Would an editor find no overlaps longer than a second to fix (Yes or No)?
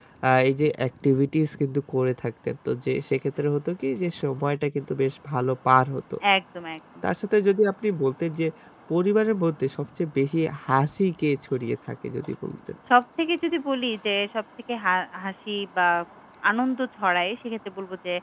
Yes